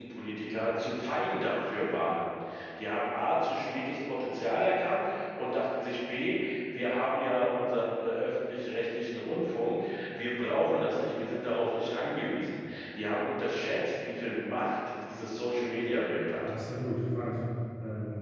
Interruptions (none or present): none